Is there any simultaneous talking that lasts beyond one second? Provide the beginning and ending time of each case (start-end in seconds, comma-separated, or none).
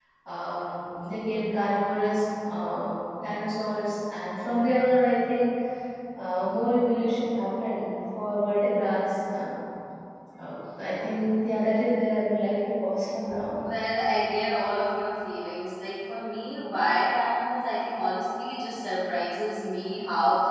none